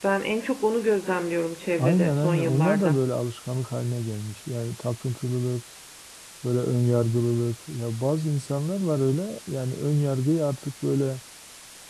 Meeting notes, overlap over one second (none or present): present